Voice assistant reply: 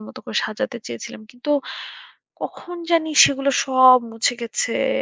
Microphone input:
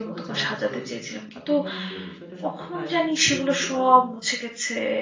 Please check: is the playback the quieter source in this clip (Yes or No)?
No